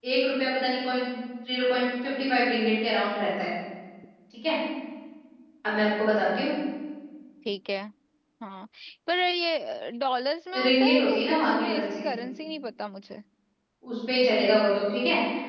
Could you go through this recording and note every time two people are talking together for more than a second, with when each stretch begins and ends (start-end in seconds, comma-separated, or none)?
10.7-12.1